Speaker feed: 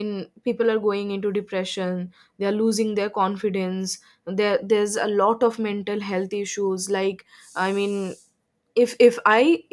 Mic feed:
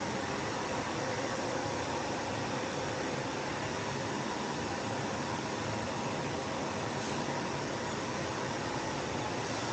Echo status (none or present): none